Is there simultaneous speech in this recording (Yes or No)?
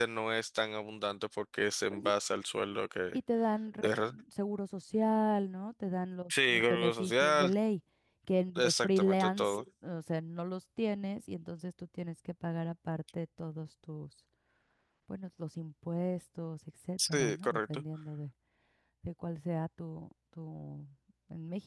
Yes